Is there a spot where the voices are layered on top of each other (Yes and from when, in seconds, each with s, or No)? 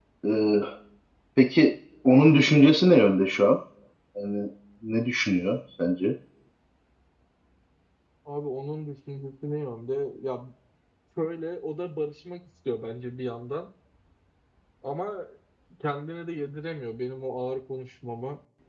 No